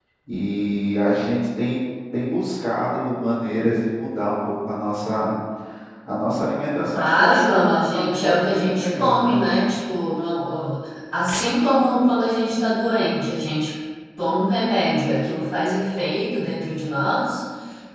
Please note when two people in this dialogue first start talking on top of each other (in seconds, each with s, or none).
7.0 s